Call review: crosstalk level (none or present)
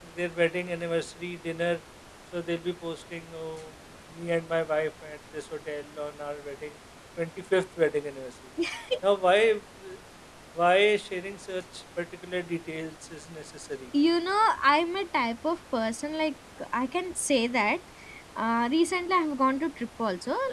none